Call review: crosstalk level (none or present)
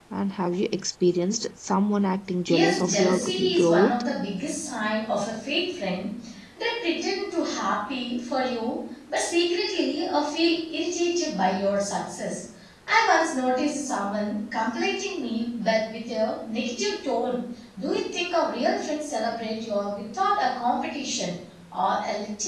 present